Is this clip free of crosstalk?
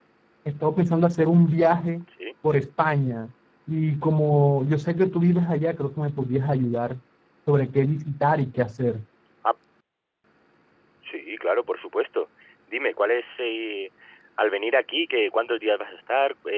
Yes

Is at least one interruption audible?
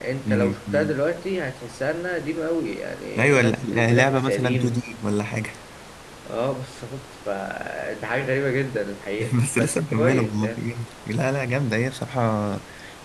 Yes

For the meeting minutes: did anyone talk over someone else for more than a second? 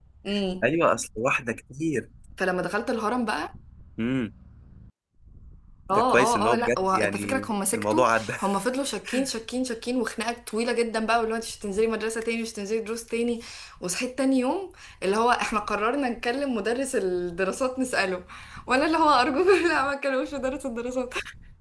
Yes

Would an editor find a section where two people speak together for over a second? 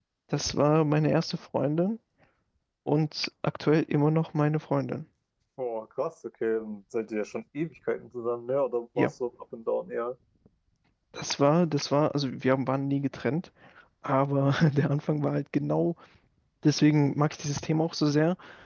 No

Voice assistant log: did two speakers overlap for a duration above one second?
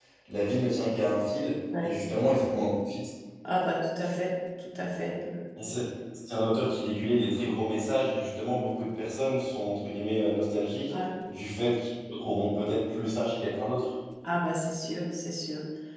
No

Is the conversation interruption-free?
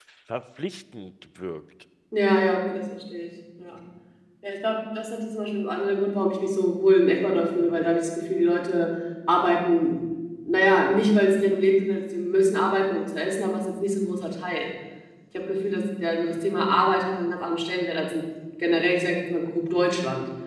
Yes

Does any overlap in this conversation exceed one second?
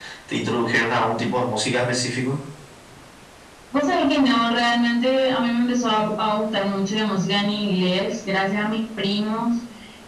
No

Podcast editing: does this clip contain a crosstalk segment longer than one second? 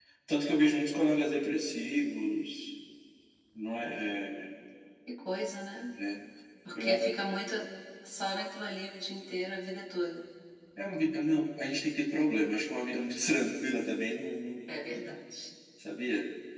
No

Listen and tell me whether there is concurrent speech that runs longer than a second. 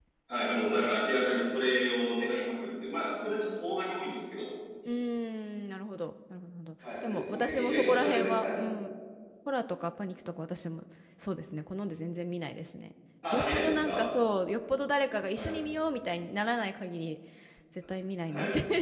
Yes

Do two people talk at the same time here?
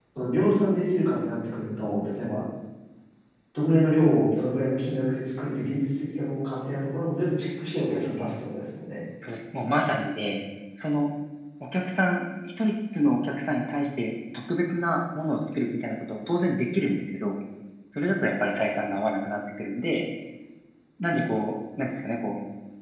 No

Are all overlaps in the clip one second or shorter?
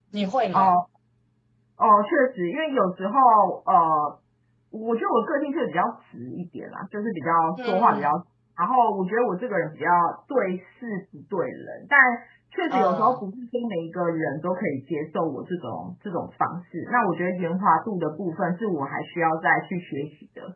Yes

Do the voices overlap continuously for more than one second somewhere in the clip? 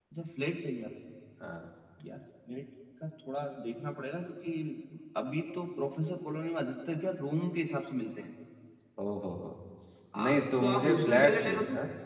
Yes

